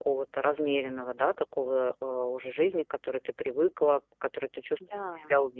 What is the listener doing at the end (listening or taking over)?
listening